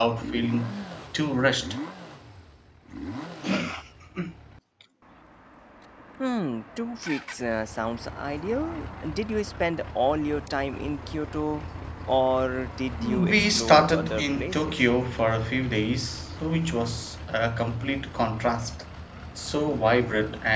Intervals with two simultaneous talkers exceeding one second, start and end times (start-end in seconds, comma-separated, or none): 13.0-14.8